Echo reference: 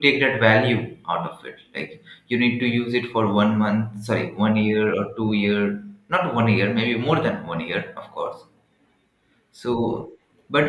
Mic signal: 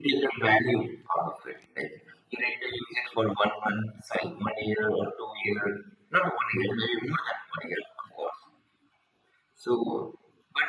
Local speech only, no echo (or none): none